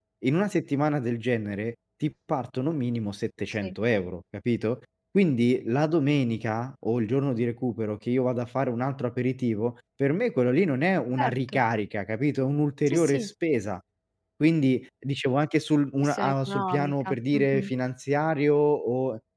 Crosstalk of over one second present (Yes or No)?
Yes